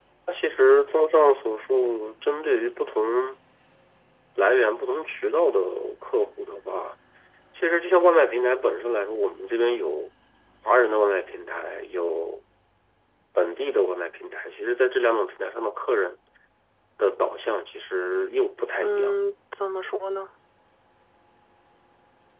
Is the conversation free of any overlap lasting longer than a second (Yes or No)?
Yes